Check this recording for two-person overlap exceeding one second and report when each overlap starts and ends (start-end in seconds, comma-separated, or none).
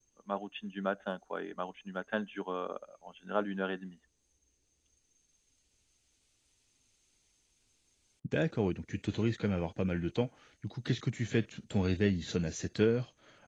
none